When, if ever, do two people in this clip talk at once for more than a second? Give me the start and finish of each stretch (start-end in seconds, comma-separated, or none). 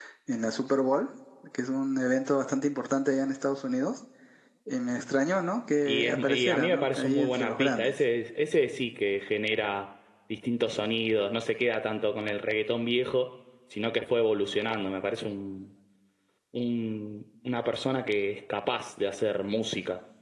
5.8-7.9